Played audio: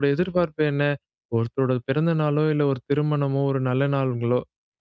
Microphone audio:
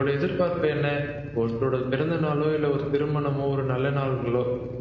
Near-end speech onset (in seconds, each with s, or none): none